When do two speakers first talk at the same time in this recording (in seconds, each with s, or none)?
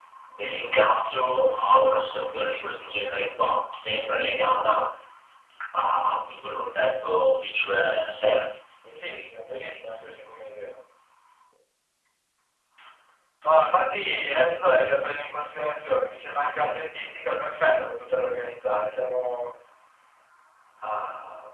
none